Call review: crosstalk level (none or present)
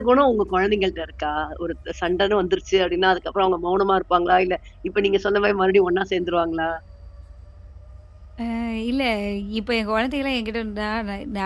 none